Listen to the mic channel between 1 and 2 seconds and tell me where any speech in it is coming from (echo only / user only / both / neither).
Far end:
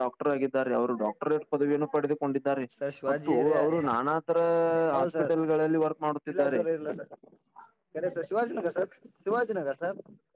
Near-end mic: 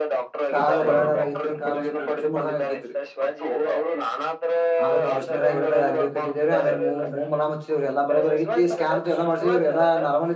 both